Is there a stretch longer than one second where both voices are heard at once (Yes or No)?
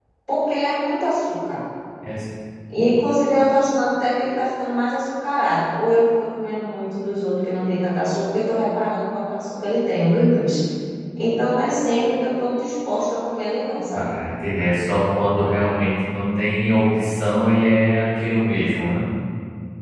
No